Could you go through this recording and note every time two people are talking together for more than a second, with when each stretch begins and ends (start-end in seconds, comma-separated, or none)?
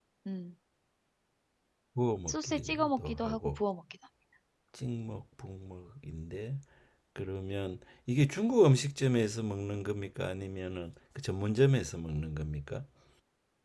2.3-3.6